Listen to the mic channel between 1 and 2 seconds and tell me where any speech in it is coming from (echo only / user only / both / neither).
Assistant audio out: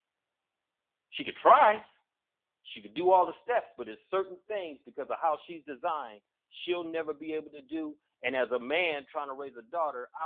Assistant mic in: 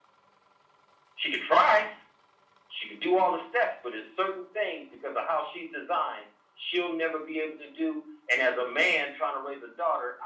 echo only